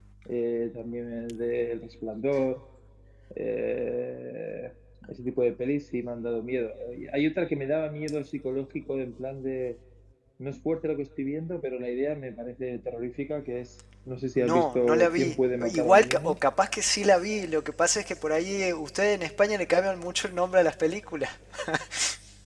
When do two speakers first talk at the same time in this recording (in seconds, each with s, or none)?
14.4 s